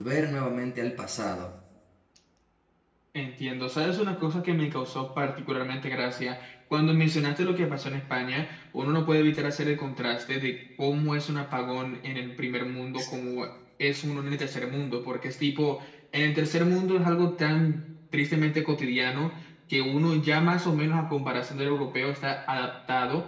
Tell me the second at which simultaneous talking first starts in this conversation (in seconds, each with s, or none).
none